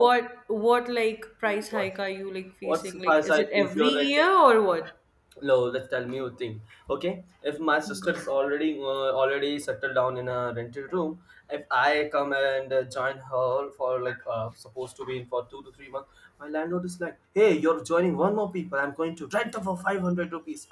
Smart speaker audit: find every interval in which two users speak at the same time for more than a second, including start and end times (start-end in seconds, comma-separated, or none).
2.6-4.3